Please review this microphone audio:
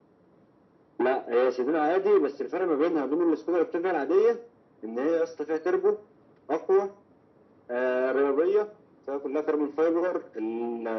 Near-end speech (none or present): none